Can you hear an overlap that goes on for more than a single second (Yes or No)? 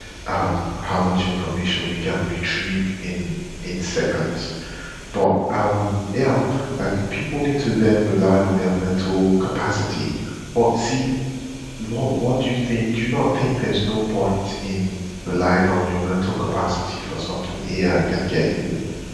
No